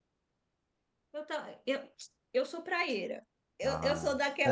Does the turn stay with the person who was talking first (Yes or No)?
Yes